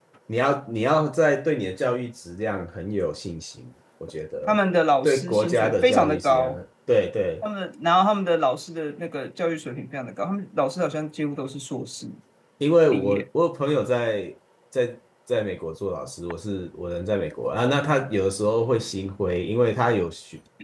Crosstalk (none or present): present